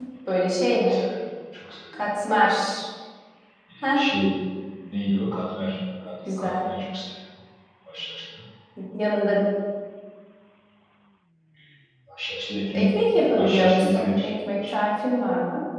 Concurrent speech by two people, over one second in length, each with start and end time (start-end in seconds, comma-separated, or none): 13.4-14.8